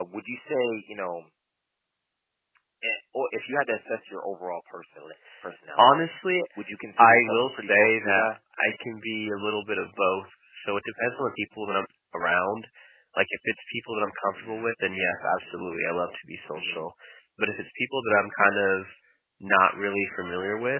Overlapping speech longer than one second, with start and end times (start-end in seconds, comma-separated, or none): 7.0-8.3